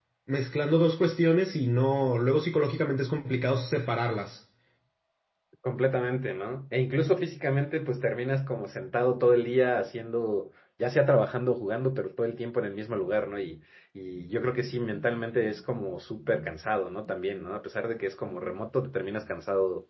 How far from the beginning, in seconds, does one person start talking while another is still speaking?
none

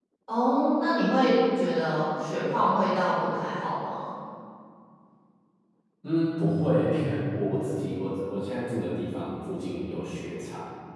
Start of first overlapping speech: none

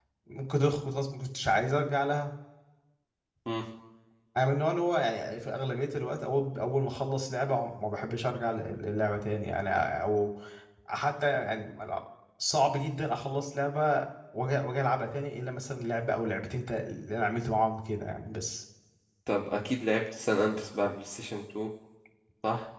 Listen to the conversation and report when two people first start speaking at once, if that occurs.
none

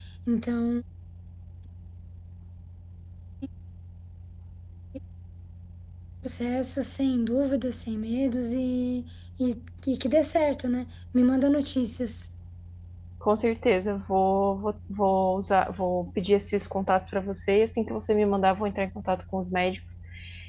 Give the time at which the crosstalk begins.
none

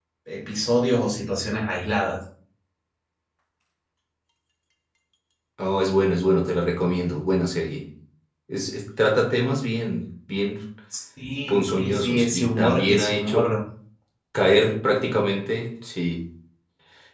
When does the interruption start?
11.5 s

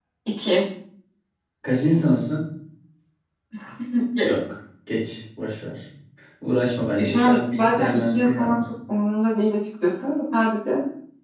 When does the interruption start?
7.0 s

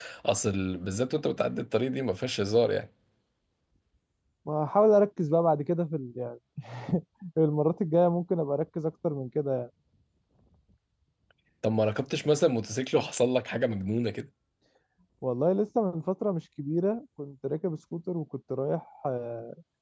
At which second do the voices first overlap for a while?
none

